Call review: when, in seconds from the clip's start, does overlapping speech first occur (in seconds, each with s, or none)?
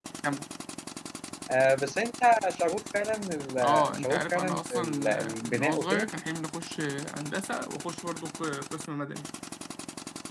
3.6 s